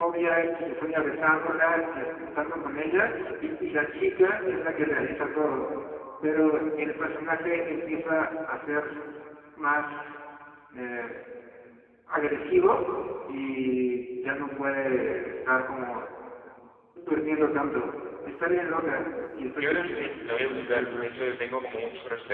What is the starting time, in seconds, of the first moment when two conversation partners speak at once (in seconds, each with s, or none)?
19.6 s